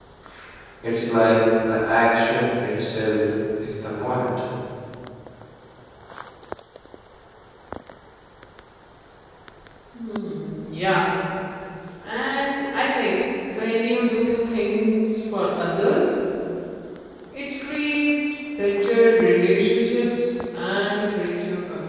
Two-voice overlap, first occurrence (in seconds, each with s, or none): none